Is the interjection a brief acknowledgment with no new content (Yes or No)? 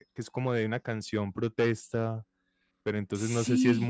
Yes